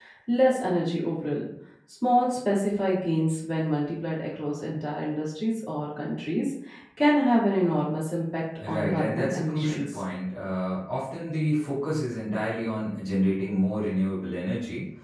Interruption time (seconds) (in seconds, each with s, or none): 8.6 s